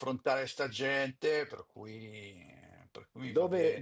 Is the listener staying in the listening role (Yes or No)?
No